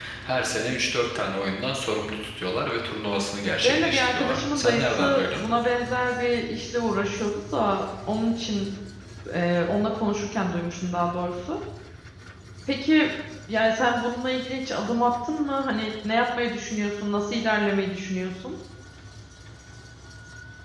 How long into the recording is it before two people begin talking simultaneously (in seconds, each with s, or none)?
3.6 s